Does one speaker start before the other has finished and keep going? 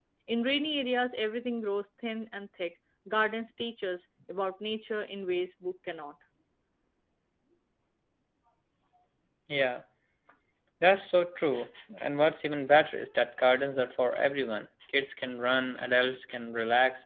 No

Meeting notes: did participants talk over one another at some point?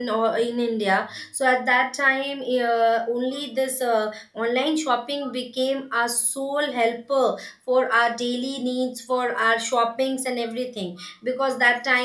No

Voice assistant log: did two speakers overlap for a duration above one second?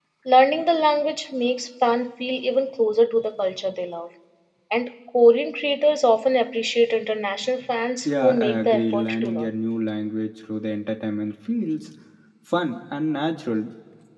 Yes, from 8.1 s

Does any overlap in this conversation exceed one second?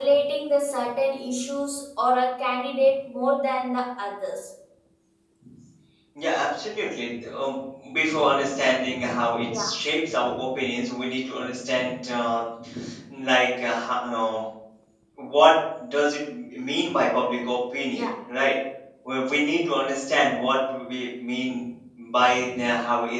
No

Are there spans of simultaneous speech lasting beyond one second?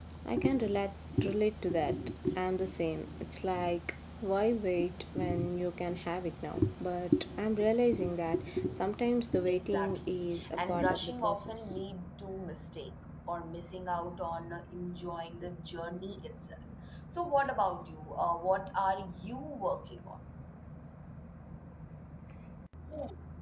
Yes, from 9.5 s

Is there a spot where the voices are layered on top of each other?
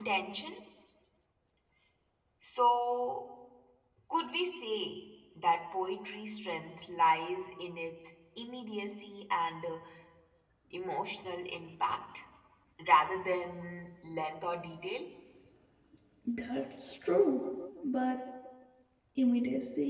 No

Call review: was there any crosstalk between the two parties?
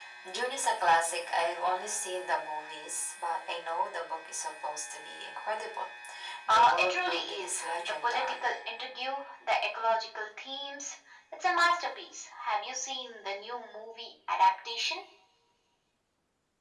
Yes, from 6.5 s

